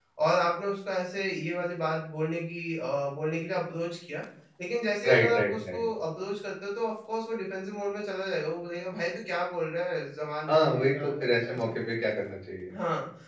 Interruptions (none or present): present